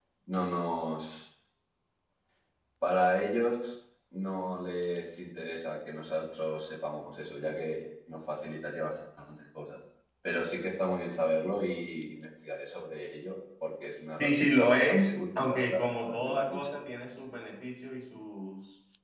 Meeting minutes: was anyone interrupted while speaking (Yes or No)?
Yes